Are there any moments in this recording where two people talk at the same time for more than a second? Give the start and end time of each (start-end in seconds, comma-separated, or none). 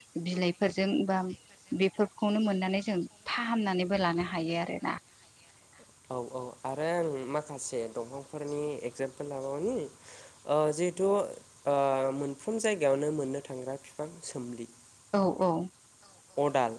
none